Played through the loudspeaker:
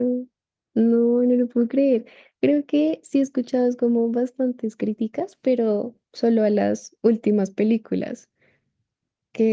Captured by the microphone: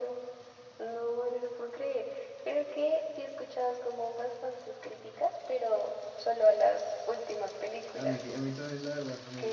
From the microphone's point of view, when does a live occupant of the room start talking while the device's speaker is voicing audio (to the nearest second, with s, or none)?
8 s